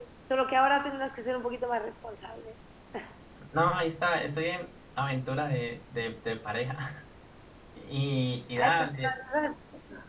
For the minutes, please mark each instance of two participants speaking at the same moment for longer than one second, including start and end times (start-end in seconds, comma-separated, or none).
none